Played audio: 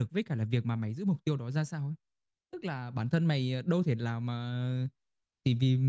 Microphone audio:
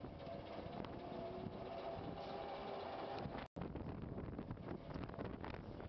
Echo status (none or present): none